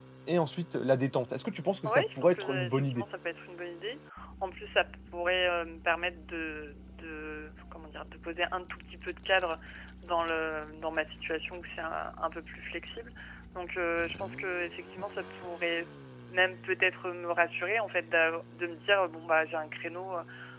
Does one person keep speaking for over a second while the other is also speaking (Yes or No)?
Yes